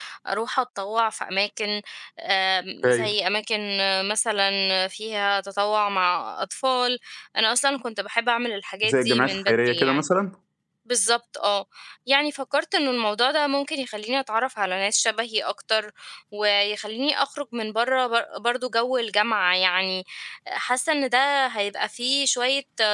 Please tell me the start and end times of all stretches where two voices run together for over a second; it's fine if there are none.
8.8-10.0

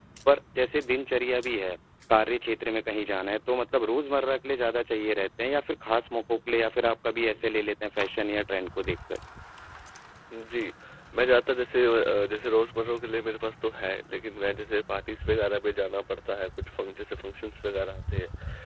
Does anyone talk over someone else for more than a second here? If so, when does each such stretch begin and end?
none

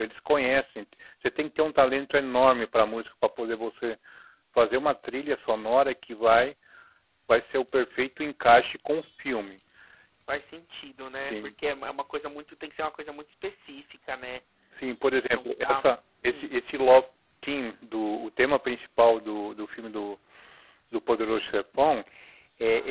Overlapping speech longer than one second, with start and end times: none

